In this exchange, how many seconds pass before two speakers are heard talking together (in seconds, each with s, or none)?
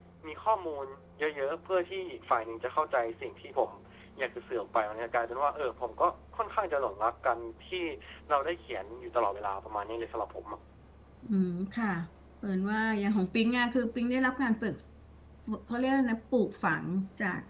none